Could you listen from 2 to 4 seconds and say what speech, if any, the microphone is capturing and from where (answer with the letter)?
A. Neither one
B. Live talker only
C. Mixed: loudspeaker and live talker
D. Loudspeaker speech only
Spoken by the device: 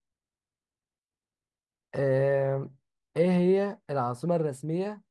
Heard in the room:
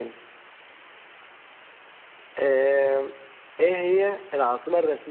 D